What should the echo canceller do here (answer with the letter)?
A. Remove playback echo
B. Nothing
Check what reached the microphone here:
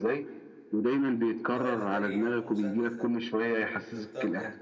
A